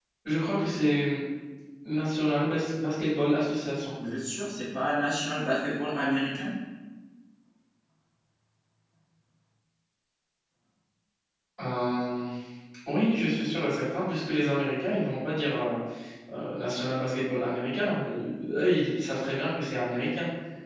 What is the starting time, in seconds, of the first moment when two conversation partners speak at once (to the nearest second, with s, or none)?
none